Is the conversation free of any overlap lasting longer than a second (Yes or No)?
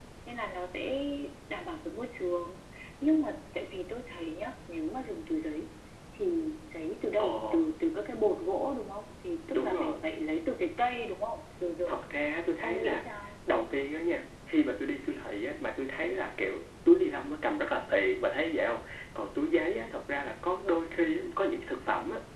Yes